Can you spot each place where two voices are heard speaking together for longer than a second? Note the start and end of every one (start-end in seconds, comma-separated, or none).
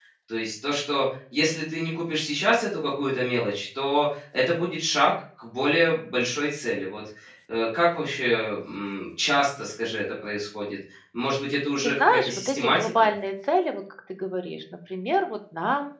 11.8-13.1